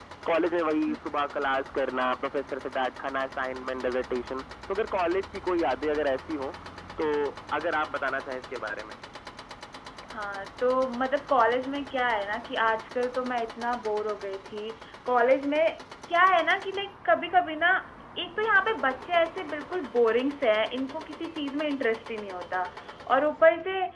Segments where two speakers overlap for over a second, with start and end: none

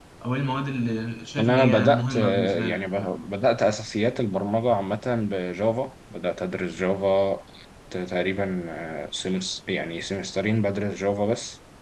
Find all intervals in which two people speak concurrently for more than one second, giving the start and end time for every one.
1.4-2.8

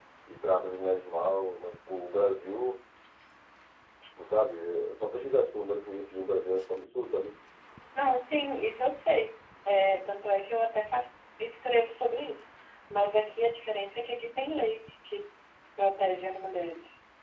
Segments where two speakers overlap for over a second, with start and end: none

